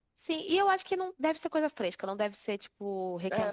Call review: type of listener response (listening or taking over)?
taking over